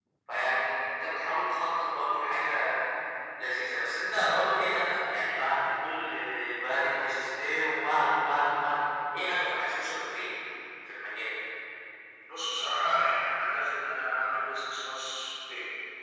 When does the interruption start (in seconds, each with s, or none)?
none